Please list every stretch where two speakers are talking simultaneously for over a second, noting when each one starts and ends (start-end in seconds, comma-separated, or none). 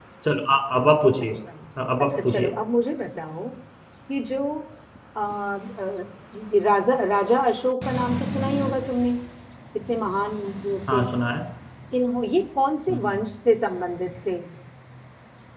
none